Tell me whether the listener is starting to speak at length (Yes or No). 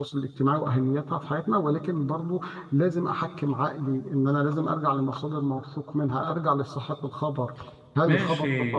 Yes